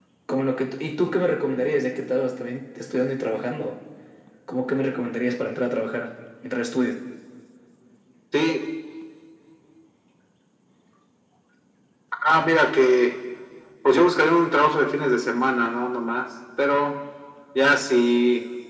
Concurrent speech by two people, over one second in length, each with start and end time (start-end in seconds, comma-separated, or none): none